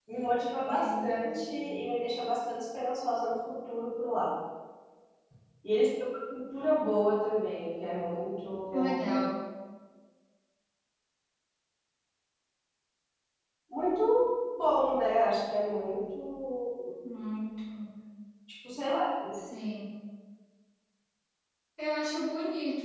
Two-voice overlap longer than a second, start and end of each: none

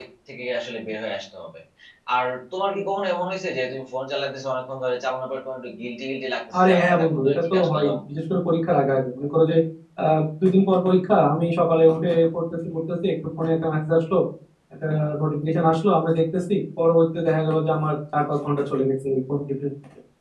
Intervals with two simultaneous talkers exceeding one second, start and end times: 6.6-7.9

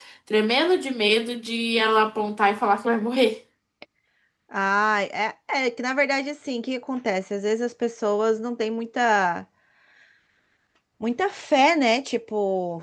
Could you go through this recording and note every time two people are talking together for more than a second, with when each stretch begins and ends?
none

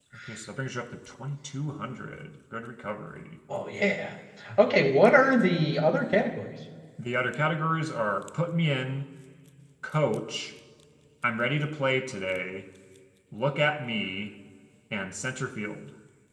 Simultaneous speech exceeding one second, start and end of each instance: none

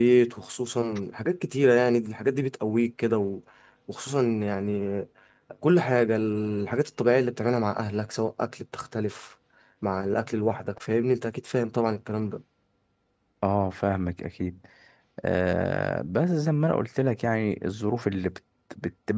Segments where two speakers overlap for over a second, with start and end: none

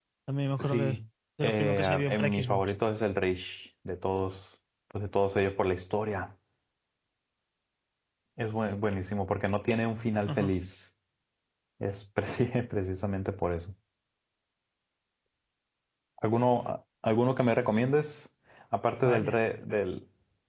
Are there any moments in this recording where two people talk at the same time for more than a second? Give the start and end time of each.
1.4-2.7

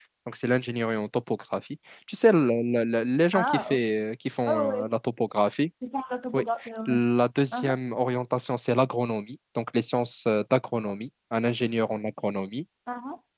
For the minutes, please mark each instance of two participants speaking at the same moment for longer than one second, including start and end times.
none

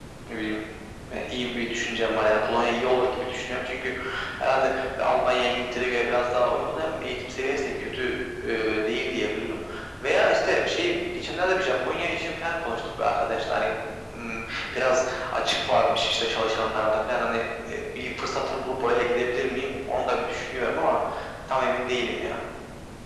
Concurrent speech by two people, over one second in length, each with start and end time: none

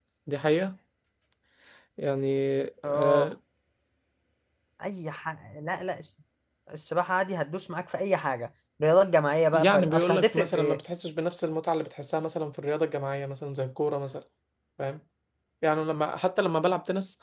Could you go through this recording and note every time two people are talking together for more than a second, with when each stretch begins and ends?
9.5-10.8

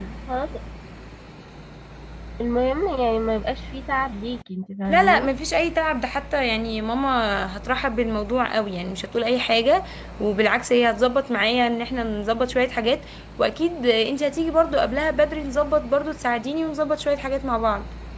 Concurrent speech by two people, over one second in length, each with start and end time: none

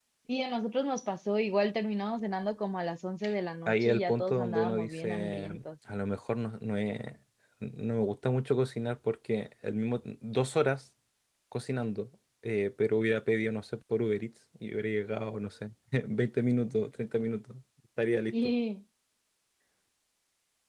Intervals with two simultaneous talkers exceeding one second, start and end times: 3.7-5.6

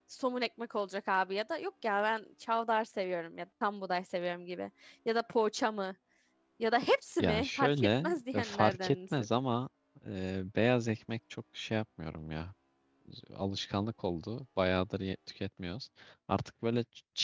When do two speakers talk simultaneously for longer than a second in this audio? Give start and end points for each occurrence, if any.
7.2-9.3

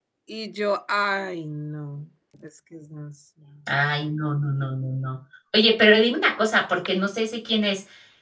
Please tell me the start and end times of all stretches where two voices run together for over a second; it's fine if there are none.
none

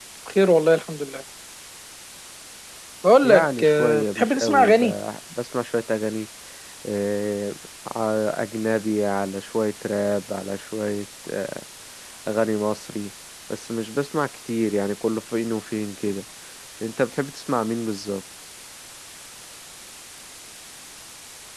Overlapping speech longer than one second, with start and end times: 3.2-4.9

